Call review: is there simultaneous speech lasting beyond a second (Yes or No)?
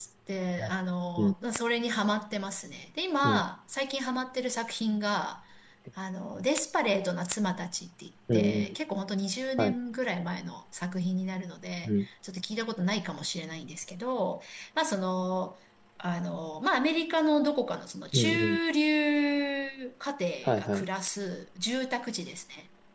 No